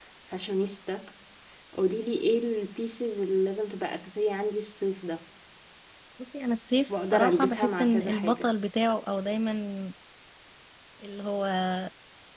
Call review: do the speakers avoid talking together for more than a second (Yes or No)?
No